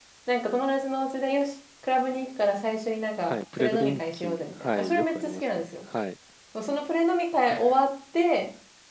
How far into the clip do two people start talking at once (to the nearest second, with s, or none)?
3 s